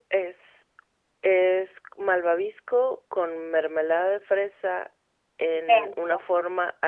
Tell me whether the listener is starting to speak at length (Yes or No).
No